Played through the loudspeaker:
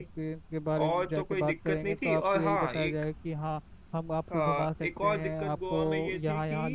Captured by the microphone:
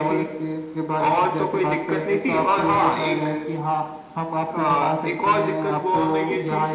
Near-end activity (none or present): none